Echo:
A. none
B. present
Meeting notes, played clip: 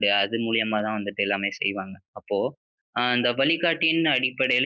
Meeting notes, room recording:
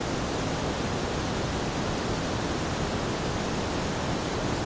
A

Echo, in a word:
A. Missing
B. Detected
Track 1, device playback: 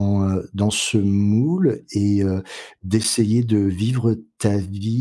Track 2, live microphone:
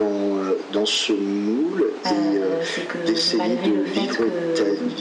B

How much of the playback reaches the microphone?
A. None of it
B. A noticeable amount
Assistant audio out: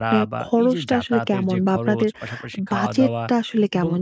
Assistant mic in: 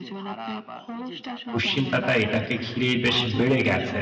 B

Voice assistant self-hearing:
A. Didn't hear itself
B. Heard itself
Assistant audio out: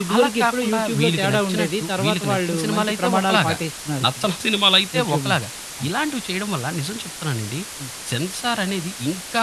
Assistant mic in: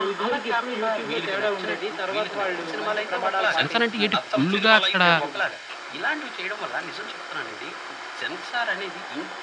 B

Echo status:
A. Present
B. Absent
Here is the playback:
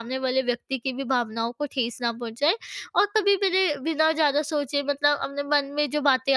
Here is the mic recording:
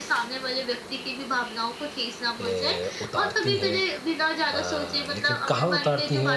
A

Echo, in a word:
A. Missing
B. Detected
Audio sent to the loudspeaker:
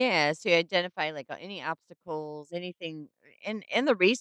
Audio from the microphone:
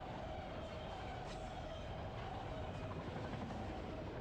A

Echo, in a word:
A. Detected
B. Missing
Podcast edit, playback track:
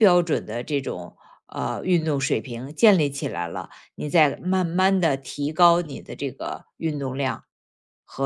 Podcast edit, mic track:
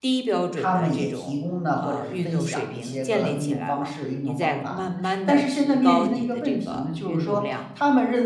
A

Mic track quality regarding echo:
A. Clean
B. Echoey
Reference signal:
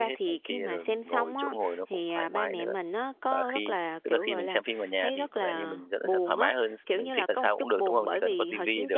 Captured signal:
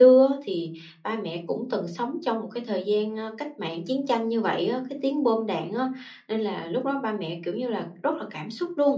A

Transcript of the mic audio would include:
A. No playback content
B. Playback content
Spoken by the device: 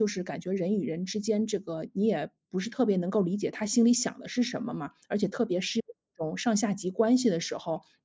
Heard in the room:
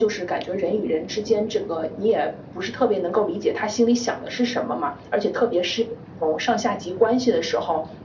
B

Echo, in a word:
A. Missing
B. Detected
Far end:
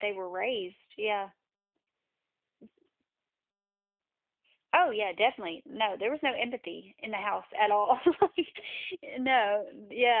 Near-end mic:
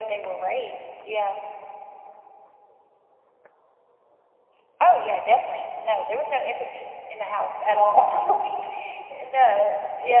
B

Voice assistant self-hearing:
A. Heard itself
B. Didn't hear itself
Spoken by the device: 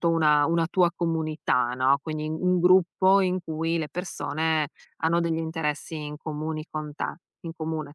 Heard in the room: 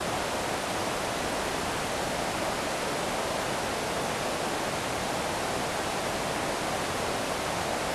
B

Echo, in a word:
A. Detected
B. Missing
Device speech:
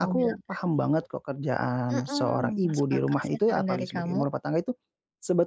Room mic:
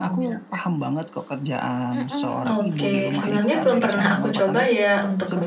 A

